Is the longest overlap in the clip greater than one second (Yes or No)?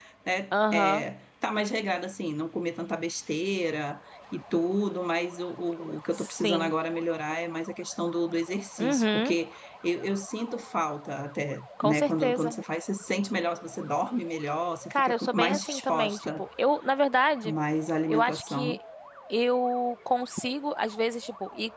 Yes